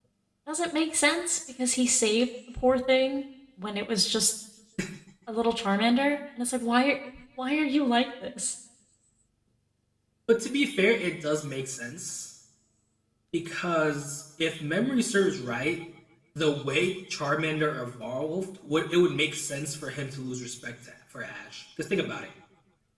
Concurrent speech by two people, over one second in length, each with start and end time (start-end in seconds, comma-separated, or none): none